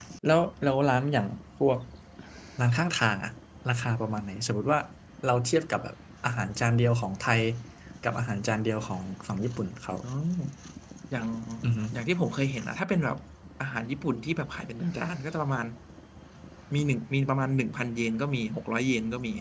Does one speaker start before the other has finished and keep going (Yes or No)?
No